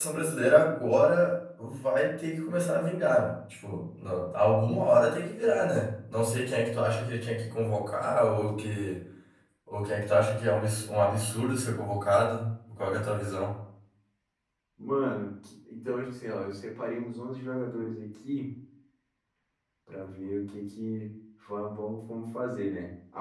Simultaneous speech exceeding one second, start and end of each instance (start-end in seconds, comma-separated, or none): none